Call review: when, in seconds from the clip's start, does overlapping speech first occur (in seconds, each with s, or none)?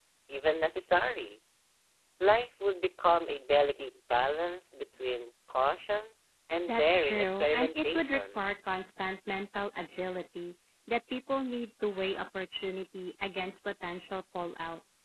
6.7 s